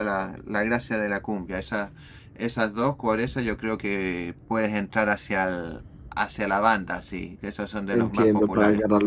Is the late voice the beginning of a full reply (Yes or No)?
Yes